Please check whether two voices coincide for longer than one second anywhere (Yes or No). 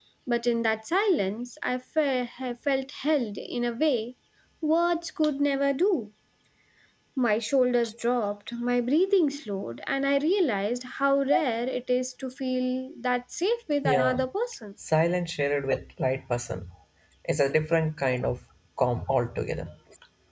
No